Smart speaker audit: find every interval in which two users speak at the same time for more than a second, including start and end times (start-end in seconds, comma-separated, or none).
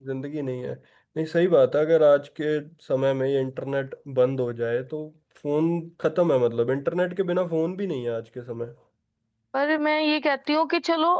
none